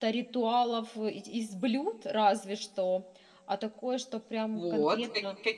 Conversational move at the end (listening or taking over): taking over